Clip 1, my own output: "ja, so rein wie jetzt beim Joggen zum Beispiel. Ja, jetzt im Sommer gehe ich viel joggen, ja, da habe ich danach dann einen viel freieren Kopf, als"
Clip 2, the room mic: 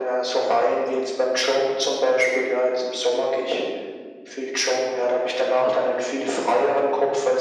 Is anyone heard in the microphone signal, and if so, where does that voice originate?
echo only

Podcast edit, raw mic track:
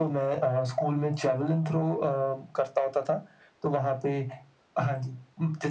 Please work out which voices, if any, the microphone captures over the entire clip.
echo only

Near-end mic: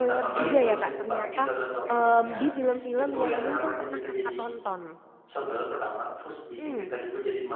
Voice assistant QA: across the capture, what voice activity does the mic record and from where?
both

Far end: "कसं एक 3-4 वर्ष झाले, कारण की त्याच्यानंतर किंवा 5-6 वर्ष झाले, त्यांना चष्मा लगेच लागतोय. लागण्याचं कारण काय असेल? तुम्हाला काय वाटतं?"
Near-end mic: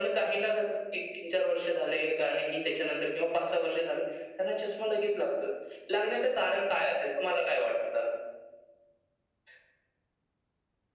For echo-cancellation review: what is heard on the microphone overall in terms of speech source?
echo only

